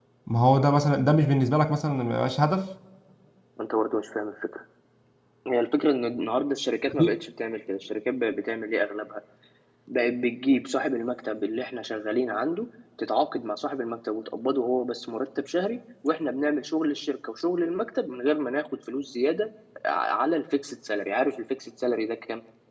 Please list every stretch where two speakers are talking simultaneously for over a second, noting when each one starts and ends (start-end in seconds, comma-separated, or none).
none